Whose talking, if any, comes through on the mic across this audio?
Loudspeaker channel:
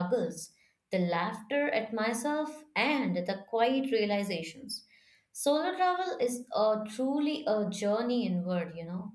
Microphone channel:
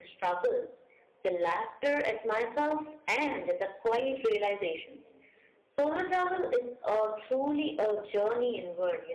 echo only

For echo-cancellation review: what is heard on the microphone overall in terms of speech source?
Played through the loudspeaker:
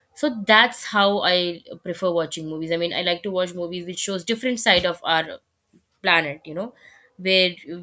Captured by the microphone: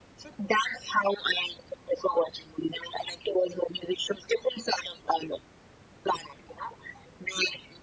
echo only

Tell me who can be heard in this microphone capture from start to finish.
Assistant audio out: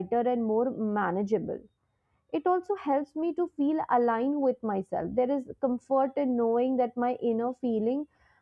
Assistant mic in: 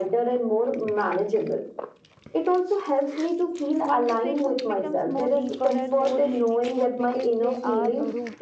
both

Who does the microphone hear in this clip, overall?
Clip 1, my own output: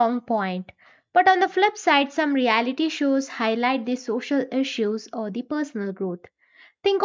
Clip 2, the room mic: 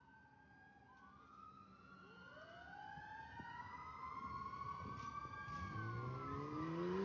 neither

